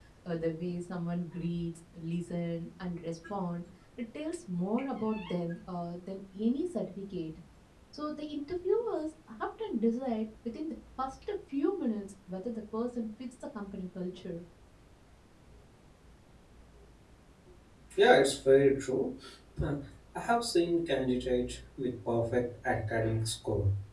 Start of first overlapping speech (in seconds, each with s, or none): none